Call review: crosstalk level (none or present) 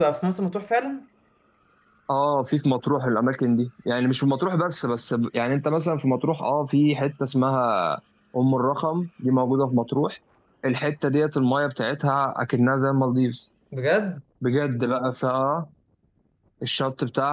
none